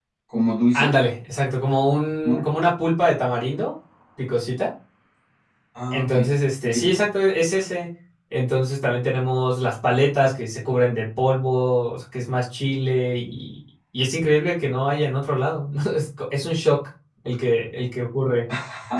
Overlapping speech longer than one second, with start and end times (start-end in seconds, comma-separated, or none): none